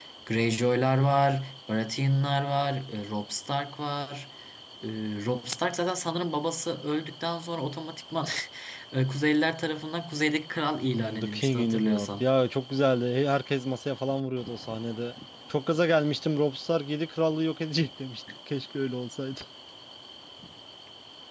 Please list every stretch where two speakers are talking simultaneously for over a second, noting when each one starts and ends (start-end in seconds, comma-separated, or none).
10.9-12.3